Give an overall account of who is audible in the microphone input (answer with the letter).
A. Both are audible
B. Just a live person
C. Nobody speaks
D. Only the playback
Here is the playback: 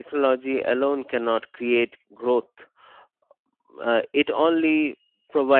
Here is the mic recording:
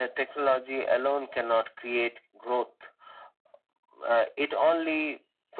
D